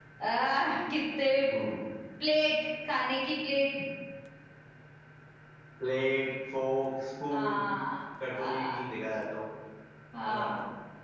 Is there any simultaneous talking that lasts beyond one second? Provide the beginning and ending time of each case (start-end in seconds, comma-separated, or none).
none